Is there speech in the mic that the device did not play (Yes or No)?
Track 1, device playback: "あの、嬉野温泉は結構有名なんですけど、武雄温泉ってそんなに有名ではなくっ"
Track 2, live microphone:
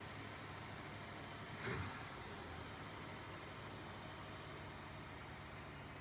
No